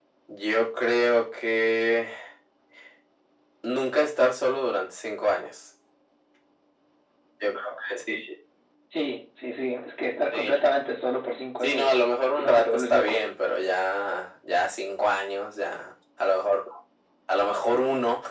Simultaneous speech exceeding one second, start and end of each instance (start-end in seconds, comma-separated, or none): 11.6-13.2